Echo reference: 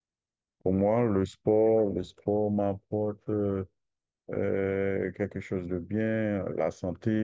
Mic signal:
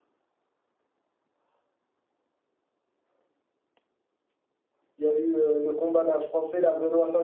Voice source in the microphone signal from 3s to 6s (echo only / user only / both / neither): user only